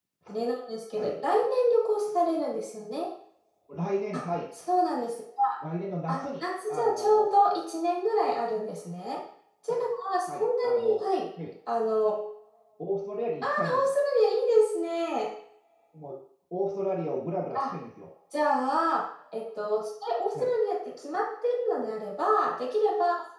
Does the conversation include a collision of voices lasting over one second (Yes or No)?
Yes